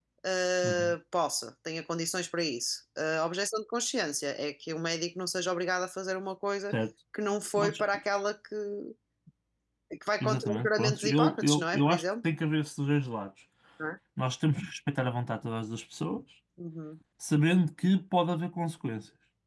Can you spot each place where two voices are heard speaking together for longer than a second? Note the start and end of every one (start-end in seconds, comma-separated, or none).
10.2-12.2